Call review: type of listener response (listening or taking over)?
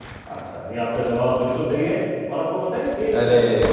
listening